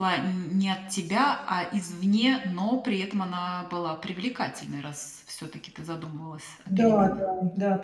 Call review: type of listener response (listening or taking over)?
taking over